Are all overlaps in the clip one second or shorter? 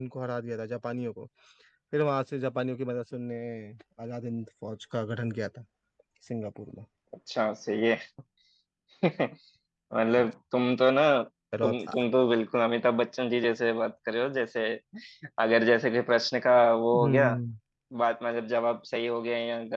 Yes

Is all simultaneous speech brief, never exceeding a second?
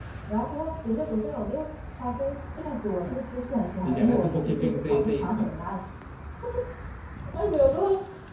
No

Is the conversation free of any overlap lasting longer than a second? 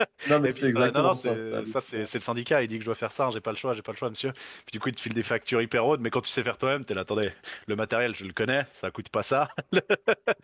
No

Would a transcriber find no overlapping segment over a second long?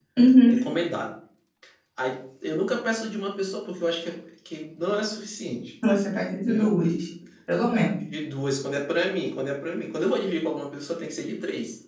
Yes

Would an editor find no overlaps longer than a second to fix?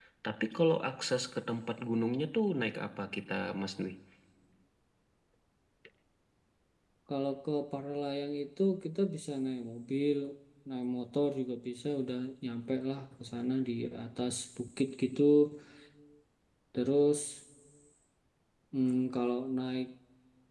Yes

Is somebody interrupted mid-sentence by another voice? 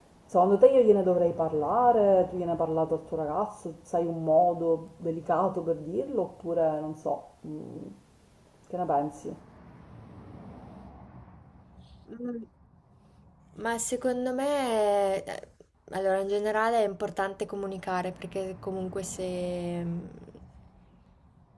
No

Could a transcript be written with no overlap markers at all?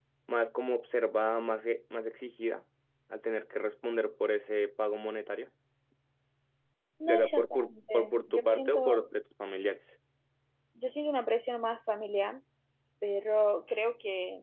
No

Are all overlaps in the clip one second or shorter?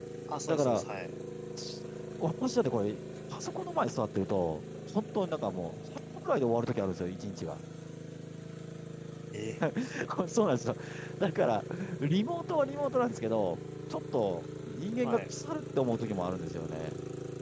Yes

